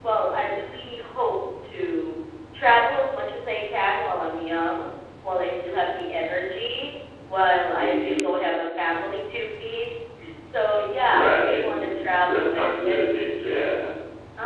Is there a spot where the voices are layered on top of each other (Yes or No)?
Yes